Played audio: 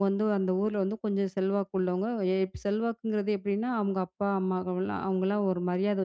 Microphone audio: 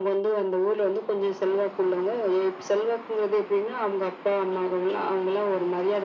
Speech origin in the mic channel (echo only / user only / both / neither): echo only